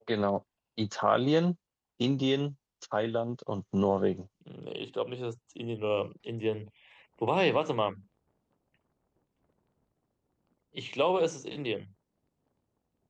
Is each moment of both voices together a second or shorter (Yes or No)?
Yes